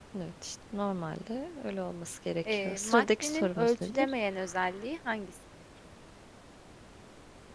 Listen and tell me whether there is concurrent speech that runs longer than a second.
Yes, from 2.5 s

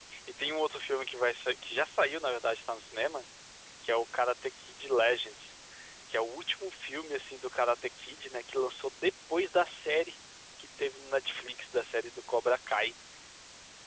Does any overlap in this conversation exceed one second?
No

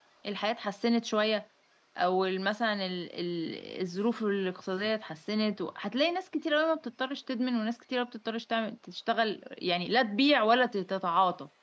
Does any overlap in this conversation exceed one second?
No

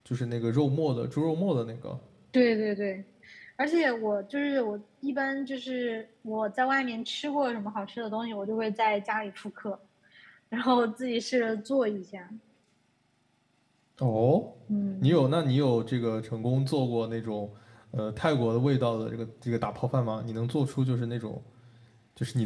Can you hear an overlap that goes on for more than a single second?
No

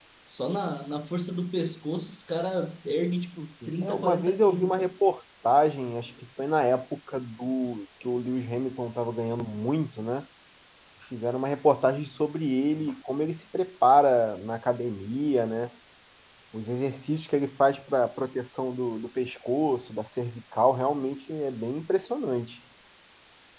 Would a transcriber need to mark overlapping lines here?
Yes, from 3.6 s

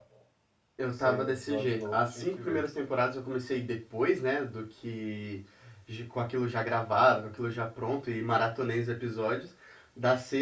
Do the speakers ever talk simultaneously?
Yes, from 1.0 s

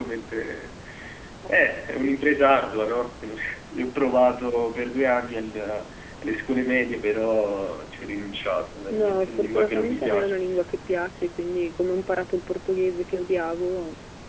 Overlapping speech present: Yes, from 8.9 s

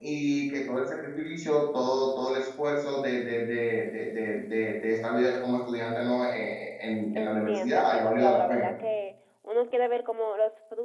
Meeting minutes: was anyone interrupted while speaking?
Yes, from 7.1 s

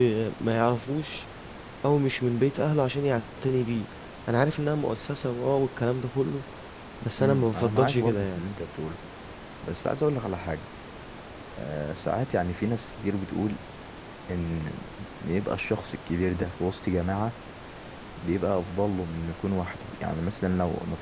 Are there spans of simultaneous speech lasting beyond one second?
Yes, from 7.2 s

